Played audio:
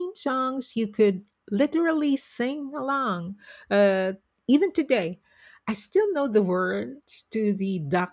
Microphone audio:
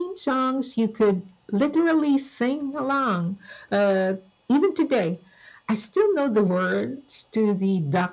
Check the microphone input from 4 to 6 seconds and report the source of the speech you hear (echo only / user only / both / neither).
echo only